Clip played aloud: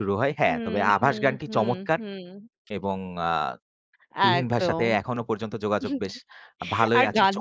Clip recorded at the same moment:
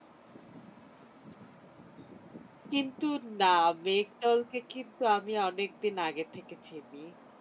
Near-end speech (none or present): present